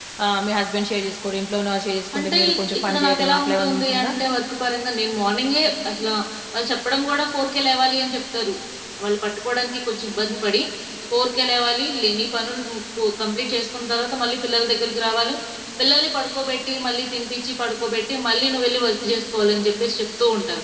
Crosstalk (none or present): present